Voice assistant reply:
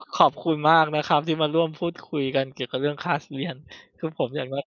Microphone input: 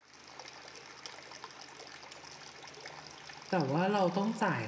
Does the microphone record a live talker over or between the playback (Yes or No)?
Yes